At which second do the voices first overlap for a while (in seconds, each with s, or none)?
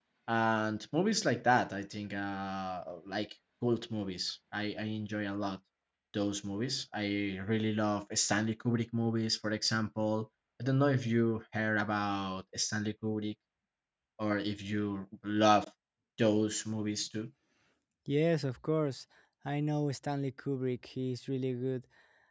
none